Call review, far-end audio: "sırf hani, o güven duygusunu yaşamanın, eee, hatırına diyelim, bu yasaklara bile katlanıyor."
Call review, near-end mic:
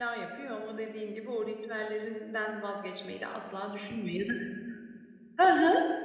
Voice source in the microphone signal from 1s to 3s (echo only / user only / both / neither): user only